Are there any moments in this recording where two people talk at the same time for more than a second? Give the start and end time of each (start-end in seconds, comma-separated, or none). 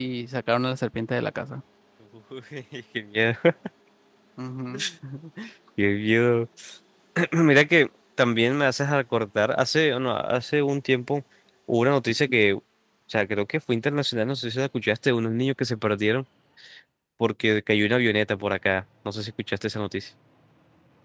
none